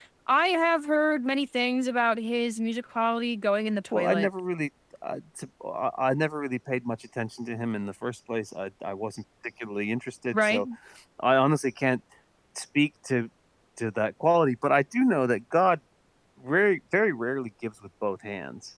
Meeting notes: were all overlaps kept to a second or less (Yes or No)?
Yes